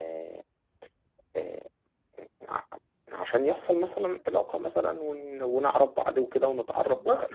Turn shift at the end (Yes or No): Yes